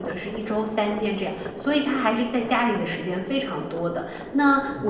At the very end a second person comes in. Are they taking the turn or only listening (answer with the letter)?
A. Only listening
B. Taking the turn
A